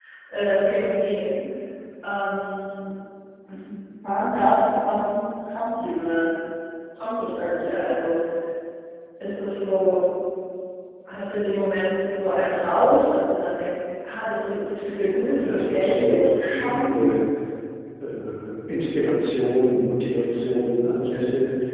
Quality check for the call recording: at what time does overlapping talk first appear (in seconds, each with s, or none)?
15.4 s